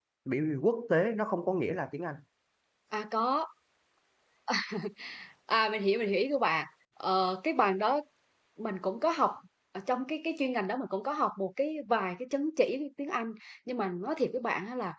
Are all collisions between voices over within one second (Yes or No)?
Yes